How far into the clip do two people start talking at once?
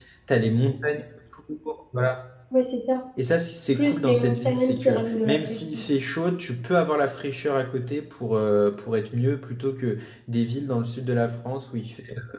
4 s

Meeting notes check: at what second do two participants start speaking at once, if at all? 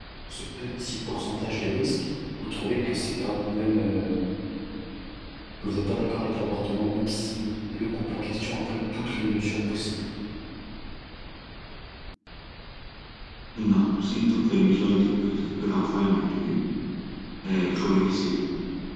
none

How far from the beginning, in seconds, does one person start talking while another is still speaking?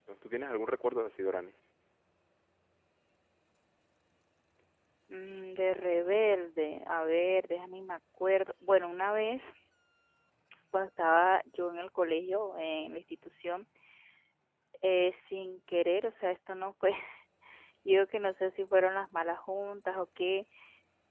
none

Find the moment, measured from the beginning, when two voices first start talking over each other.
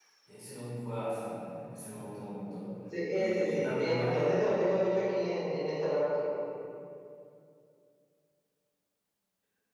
3 s

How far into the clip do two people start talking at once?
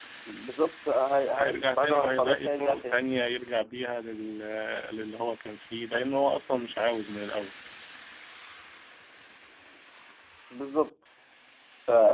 1 s

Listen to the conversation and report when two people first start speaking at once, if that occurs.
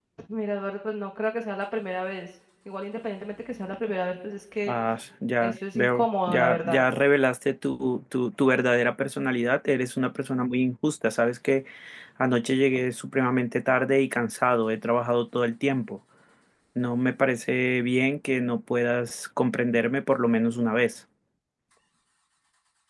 5 s

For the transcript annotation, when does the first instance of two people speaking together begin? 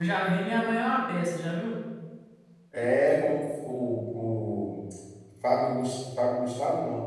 none

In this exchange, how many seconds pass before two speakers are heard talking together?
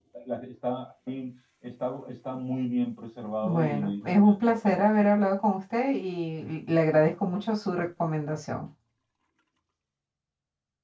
3 s

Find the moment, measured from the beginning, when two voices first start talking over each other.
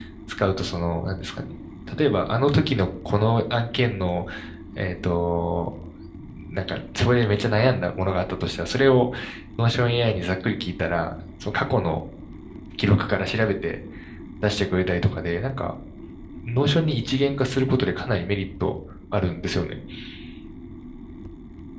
none

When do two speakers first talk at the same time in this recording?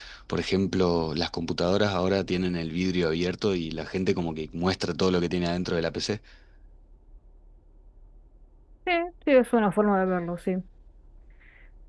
none

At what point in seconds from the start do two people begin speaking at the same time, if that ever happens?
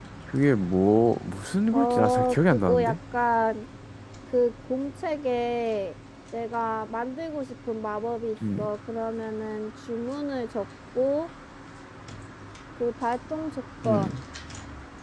2 s

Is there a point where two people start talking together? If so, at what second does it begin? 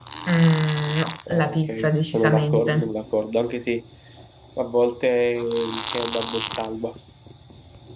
1 s

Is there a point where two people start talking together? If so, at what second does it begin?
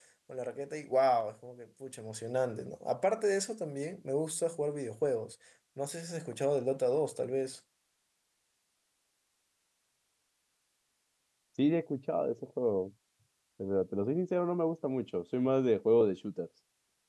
none

